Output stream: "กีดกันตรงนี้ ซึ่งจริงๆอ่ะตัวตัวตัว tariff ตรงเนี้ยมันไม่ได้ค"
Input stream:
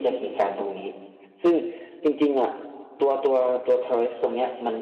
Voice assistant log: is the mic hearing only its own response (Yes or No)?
Yes